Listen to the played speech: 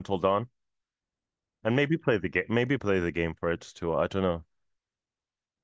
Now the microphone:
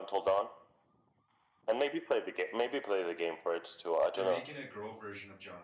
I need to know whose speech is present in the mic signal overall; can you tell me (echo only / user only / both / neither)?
both